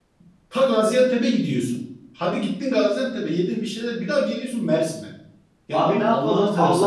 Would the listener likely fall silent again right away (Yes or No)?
No